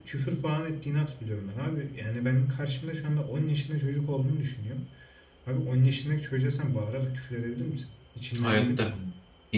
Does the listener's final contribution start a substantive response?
Yes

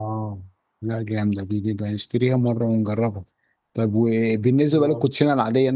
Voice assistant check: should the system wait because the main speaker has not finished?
Yes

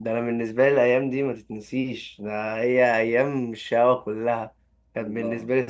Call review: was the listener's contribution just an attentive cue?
Yes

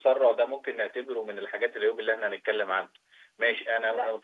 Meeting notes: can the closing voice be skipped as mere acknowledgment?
Yes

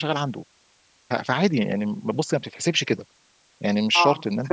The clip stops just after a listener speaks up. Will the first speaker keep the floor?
Yes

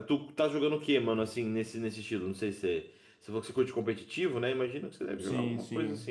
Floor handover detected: Yes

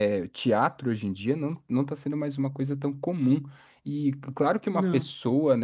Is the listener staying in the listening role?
Yes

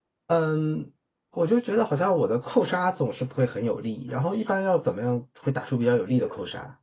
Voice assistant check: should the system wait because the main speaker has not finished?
No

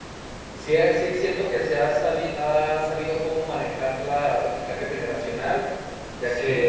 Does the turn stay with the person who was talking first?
Yes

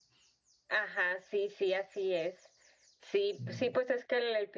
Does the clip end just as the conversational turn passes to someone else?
No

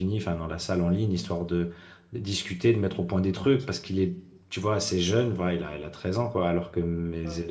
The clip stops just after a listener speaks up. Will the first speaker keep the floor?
Yes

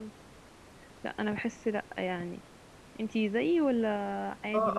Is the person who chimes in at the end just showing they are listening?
No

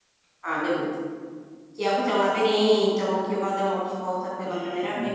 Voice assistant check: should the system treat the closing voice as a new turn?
Yes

